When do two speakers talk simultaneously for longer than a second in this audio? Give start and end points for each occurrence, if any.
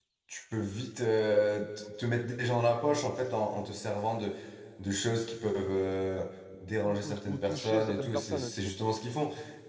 6.8-8.7

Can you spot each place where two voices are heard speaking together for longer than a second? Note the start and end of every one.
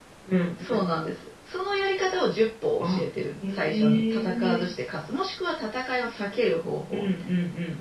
3.5-4.7

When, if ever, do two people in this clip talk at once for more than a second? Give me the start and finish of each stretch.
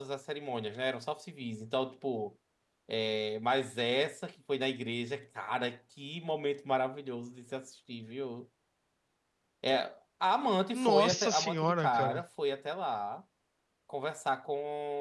10.7-12.2

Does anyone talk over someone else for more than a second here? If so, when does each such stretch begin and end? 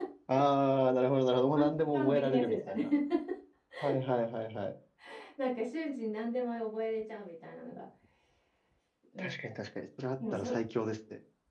1.6-2.9

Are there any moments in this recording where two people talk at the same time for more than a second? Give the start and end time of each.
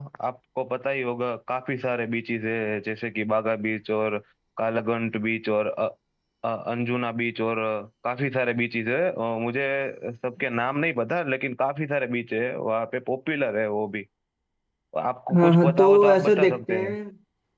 15.3-17.0

